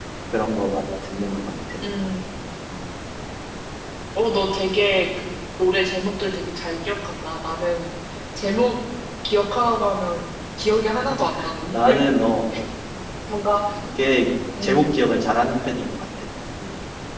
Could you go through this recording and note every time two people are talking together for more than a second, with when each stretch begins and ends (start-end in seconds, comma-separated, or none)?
none